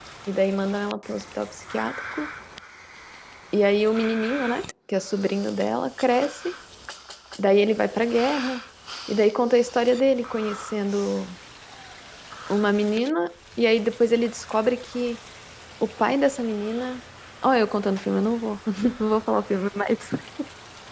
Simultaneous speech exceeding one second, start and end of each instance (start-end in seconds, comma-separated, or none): none